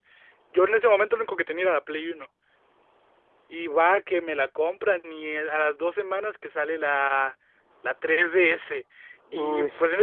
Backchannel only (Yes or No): Yes